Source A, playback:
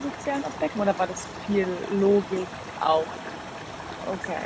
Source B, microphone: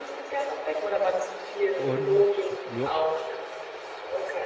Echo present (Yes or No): Yes